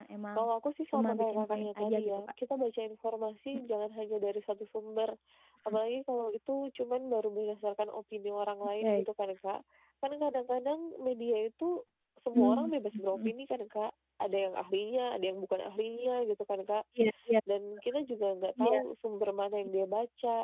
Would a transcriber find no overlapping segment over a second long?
No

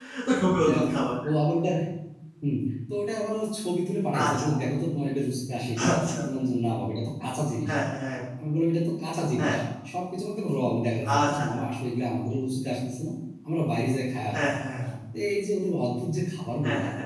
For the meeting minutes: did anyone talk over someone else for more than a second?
No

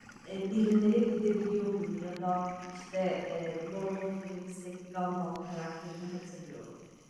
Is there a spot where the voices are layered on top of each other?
No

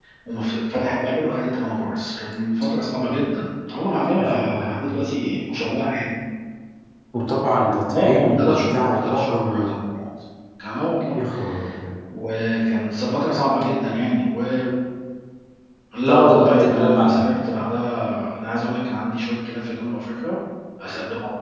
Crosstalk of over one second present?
Yes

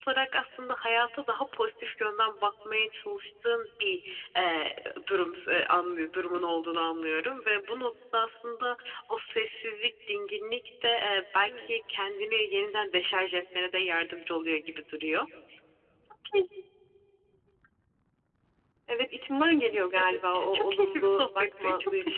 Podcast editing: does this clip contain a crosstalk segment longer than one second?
Yes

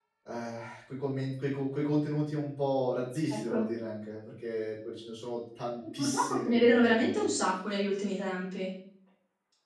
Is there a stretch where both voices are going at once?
Yes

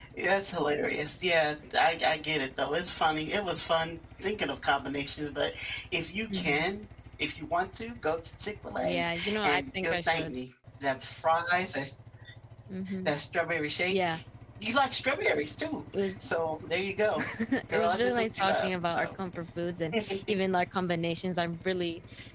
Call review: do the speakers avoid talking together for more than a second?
No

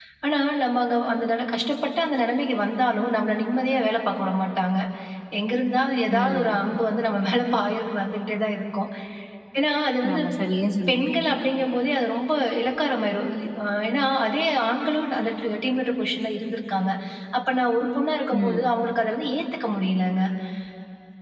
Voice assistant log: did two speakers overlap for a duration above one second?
No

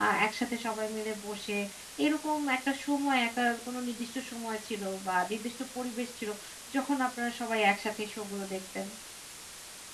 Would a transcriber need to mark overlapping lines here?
No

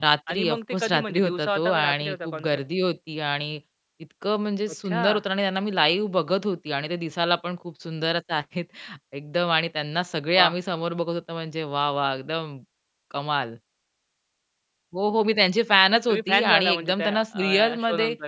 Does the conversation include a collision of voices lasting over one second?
Yes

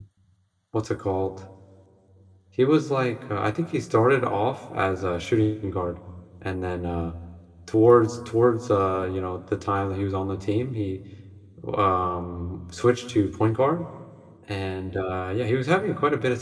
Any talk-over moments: No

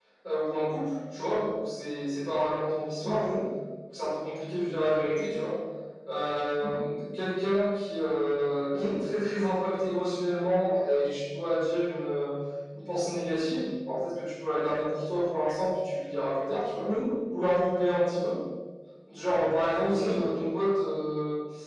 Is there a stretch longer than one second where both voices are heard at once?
No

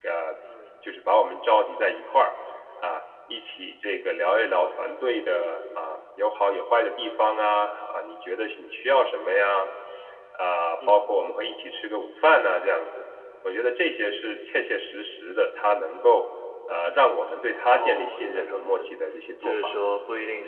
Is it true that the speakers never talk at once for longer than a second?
No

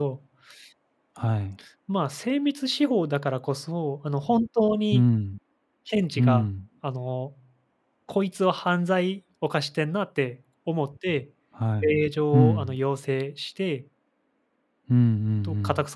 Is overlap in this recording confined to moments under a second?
Yes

